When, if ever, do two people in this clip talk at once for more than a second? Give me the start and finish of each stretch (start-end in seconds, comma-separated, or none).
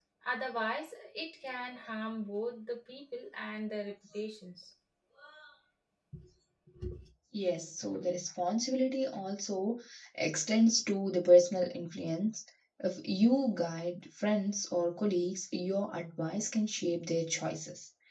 none